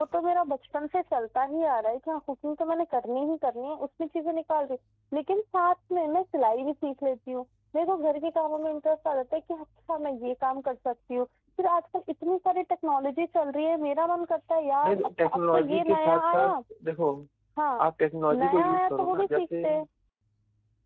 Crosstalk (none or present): present